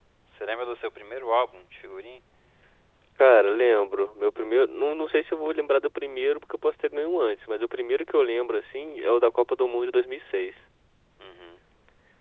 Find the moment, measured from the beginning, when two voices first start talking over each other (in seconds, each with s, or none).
none